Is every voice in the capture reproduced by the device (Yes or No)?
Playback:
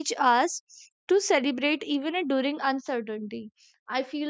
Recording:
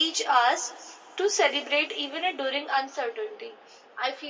Yes